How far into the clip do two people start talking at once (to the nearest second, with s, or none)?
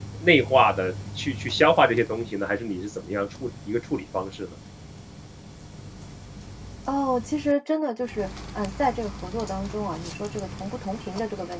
none